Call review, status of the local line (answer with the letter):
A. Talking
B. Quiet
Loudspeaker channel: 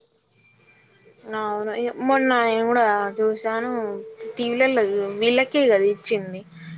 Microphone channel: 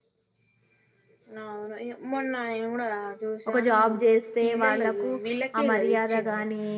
A